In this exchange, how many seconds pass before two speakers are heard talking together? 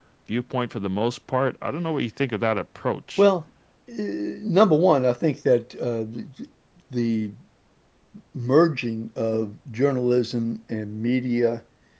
none

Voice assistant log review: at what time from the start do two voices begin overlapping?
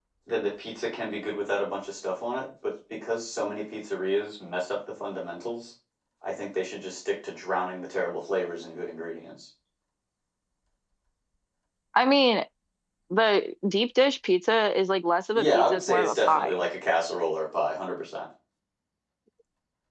15 s

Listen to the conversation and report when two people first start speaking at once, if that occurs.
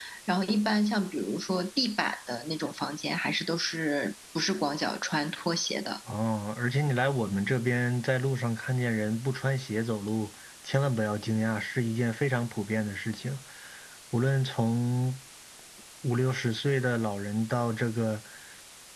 none

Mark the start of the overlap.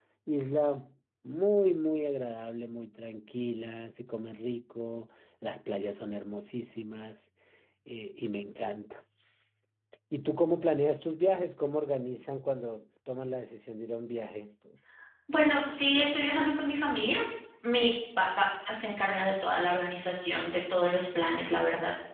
none

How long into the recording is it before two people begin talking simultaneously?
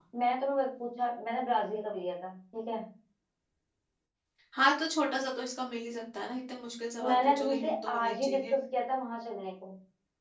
7 s

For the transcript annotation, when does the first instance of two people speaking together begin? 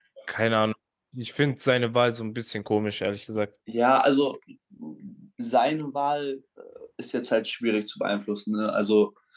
none

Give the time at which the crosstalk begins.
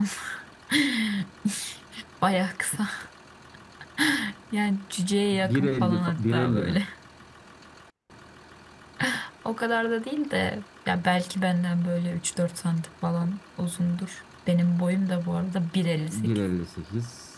5 s

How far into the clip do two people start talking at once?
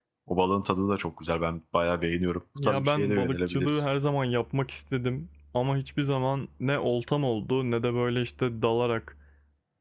3 s

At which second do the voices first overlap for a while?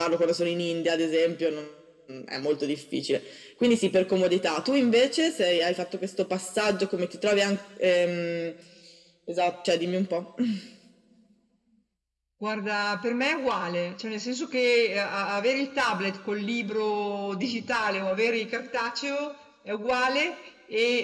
none

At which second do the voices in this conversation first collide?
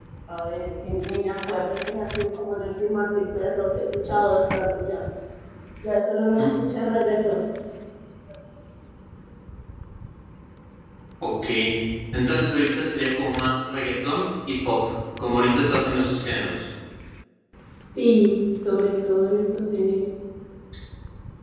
none

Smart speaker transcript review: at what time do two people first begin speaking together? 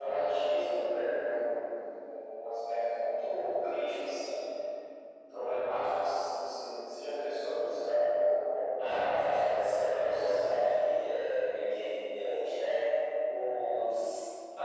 9 s

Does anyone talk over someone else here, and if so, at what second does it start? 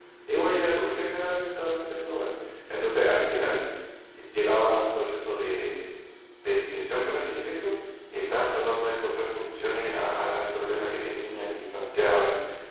none

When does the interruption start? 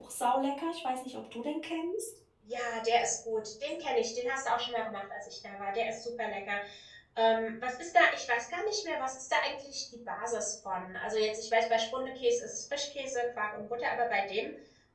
none

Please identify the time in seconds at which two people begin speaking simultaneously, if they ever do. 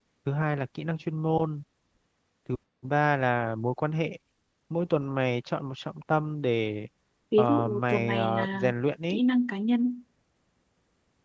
7 s

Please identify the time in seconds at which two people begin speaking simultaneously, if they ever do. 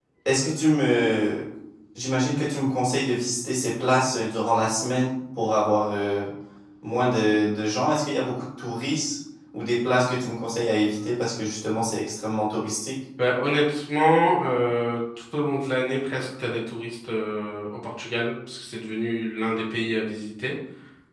none

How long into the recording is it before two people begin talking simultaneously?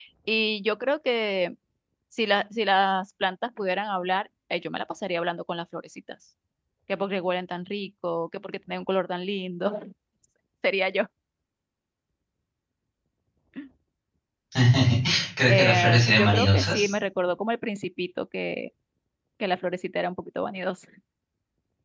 15 s

